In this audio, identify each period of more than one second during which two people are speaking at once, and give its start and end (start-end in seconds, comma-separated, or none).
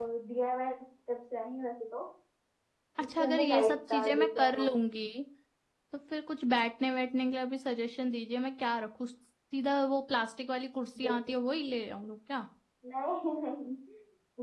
3.2-4.7